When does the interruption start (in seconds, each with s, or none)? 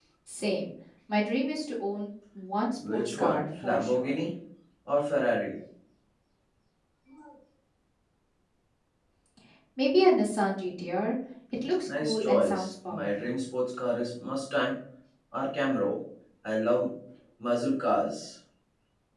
2.9 s